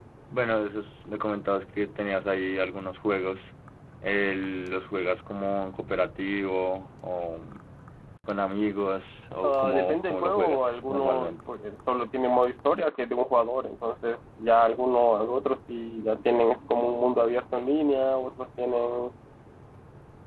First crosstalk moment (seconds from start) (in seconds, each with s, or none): 9.4 s